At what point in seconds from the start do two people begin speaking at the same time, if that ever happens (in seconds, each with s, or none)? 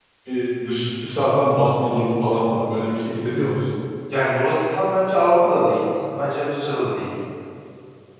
none